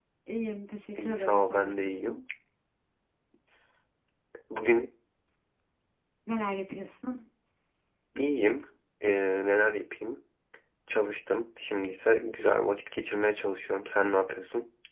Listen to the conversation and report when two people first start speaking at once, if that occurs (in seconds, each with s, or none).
1.0 s